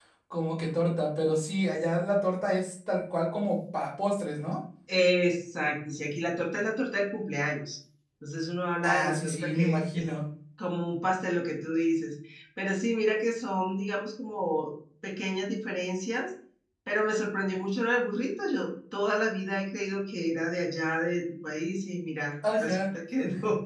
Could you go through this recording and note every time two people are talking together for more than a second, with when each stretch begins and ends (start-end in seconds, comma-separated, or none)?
8.8-10.1